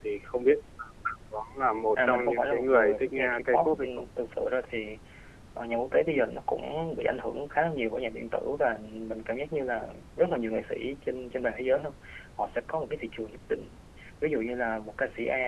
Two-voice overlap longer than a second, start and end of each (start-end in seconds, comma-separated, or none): 2.0-4.0